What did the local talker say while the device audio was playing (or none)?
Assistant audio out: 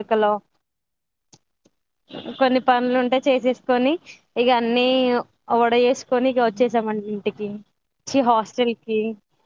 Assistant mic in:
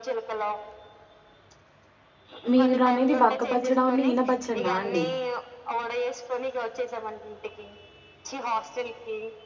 మీరు అనేది వక్కపచ్చడా న ఈన పచ్చడనా అండి